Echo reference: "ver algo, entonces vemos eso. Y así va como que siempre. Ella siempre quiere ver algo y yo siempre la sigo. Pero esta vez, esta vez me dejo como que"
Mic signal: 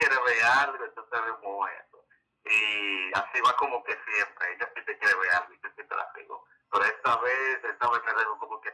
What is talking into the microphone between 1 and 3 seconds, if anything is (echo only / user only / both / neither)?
echo only